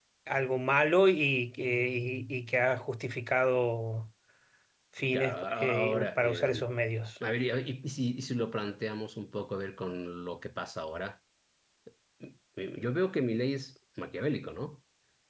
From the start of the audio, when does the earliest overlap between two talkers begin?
5 s

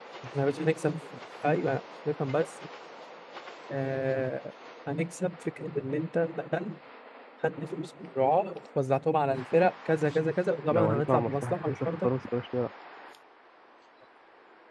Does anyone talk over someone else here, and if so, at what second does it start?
11 s

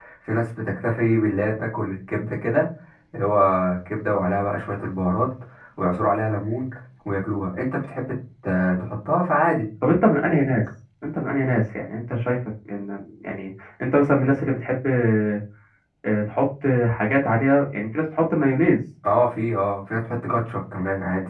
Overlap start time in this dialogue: none

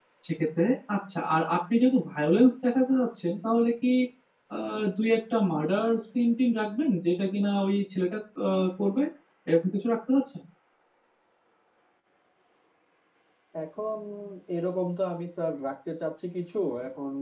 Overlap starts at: none

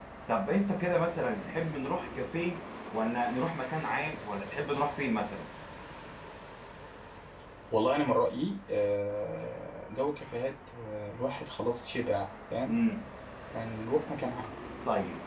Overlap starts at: none

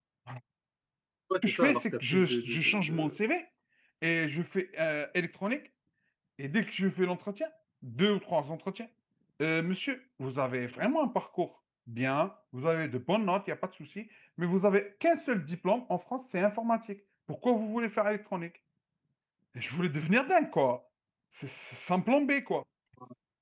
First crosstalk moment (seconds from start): 1 s

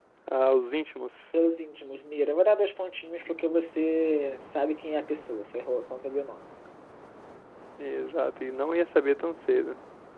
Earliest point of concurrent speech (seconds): none

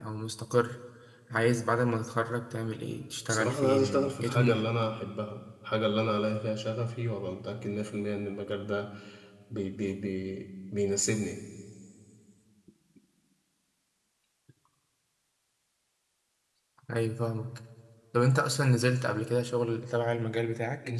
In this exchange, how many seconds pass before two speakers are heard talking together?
3 s

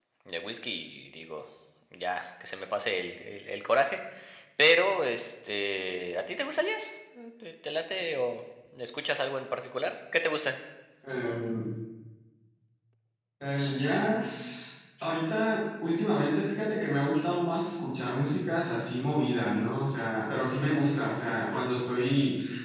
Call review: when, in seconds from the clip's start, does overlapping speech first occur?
none

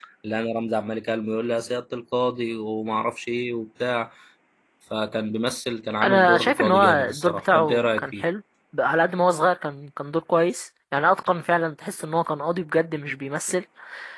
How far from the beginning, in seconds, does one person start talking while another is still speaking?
6 s

